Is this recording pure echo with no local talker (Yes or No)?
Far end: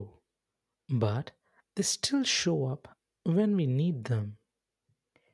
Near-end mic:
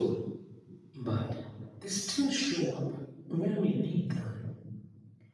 Yes